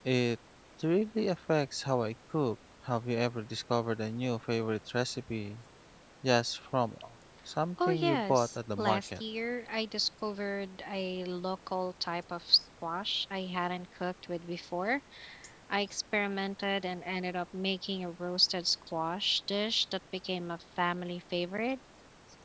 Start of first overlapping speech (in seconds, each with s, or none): 7.8 s